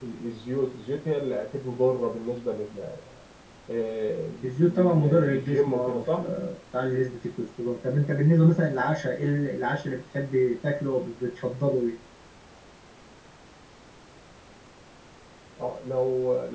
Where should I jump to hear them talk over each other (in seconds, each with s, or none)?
4.4 s